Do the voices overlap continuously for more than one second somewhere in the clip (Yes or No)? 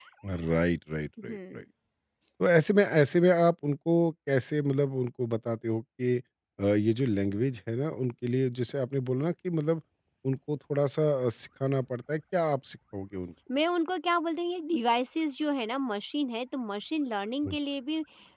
No